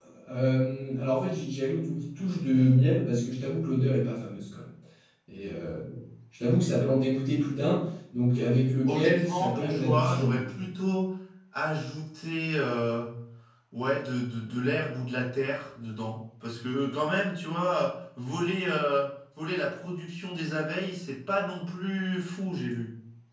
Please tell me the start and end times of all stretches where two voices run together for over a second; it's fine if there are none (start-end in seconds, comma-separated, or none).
8.9-10.5